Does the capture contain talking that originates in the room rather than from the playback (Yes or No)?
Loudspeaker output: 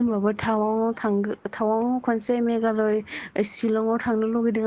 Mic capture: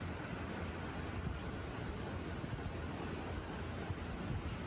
No